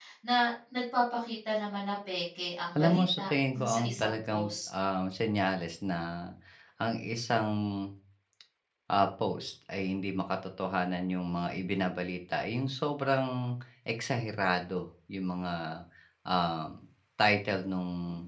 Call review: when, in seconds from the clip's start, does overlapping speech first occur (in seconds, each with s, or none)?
2.8 s